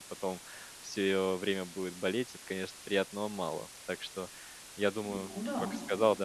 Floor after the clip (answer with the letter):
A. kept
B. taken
A